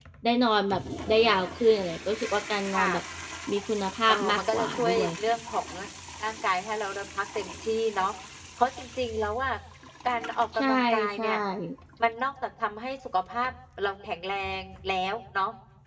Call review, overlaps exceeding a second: present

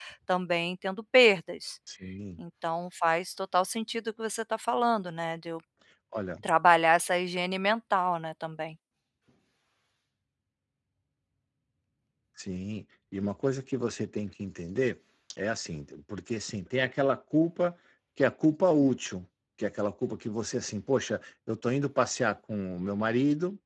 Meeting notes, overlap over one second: none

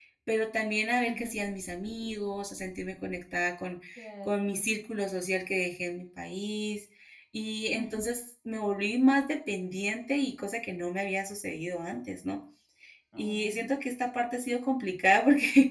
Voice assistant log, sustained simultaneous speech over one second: none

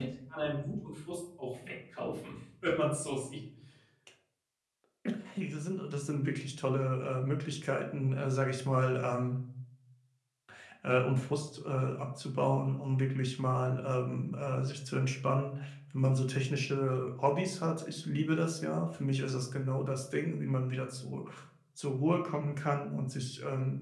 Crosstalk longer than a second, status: none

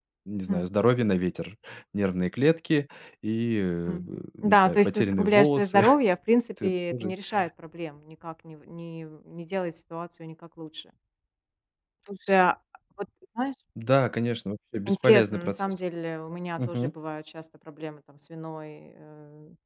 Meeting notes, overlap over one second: present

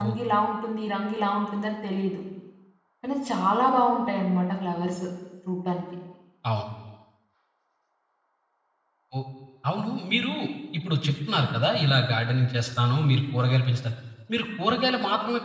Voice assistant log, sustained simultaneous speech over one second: none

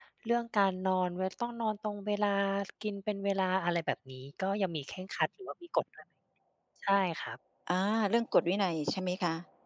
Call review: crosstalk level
none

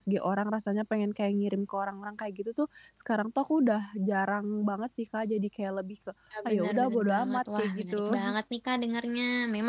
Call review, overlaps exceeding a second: present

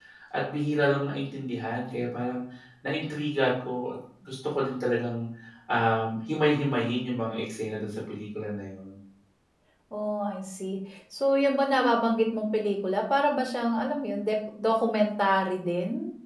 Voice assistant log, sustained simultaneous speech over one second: none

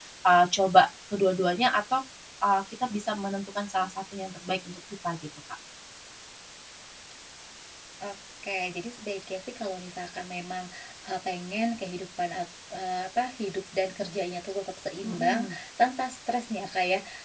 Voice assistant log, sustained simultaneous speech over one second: none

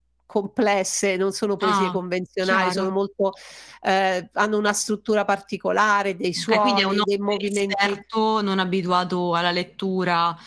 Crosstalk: present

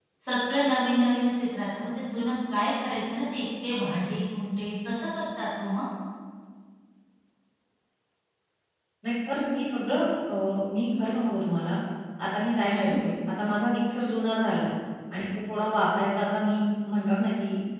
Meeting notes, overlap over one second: none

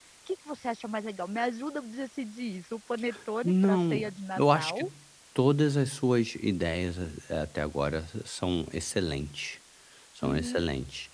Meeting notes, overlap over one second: present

